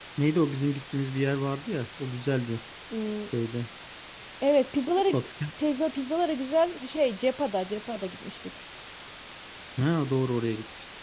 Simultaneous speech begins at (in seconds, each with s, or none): none